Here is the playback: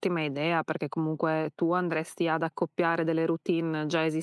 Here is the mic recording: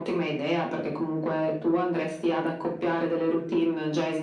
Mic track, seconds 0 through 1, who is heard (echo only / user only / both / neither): echo only